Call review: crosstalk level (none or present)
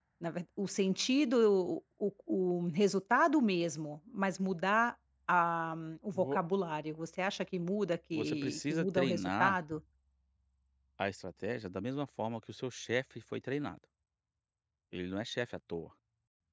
present